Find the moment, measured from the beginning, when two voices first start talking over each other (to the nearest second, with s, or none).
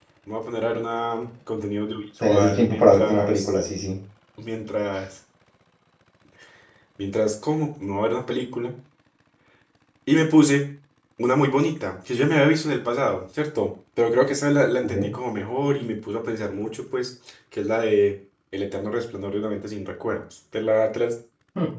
2 s